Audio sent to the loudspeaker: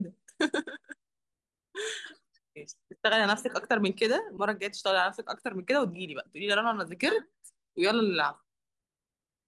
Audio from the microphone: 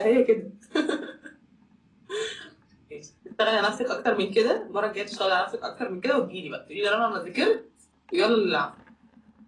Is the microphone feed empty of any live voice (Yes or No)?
Yes